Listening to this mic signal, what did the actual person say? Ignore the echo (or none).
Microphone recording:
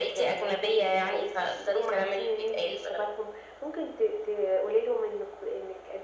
none